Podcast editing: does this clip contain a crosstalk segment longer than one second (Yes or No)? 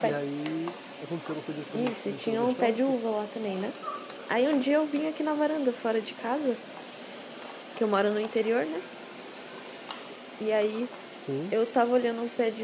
Yes